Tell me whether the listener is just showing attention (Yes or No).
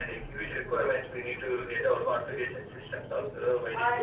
Yes